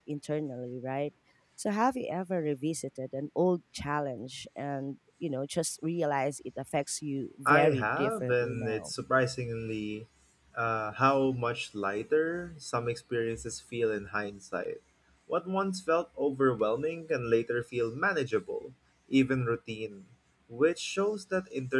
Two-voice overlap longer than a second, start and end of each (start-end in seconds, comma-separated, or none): 7.5-8.9